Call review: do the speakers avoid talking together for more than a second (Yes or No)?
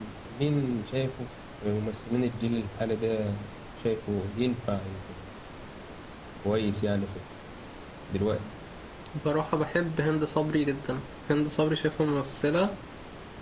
Yes